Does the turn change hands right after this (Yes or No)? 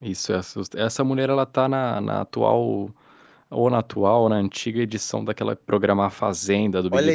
Yes